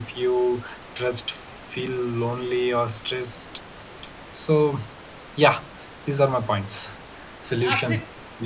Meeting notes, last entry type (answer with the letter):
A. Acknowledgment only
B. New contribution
B